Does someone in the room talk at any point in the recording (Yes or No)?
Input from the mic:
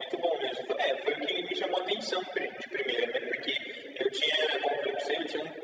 No